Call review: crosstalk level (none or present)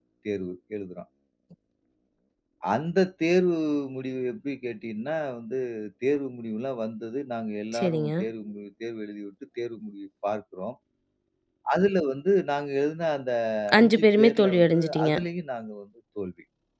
present